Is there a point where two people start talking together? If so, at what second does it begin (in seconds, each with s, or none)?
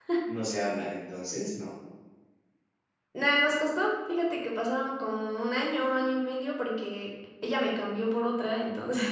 none